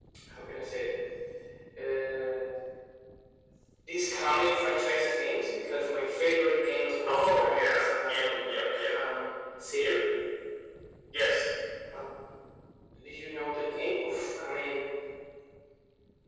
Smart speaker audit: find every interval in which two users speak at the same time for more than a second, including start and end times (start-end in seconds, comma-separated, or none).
7.1-9.0